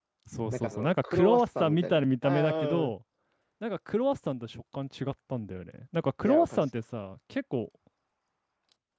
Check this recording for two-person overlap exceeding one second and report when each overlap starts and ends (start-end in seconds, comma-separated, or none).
0.5-2.9